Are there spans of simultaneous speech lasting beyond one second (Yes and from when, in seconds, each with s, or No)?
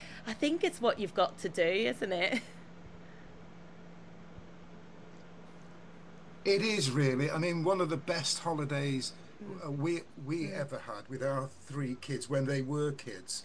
No